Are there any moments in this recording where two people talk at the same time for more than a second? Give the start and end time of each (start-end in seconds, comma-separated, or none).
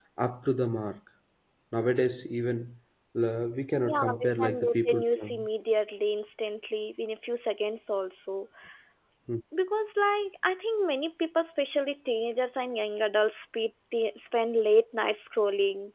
3.8-5.3